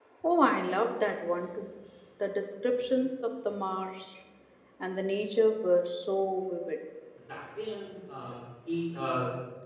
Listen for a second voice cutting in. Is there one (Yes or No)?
No